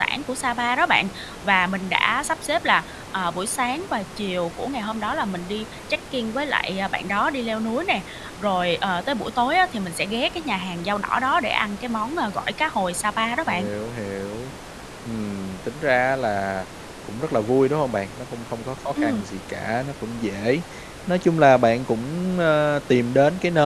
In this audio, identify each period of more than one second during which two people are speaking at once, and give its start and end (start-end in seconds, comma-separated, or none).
none